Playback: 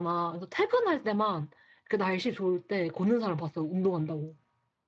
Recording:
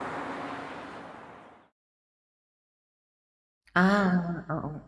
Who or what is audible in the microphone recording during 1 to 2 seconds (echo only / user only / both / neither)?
neither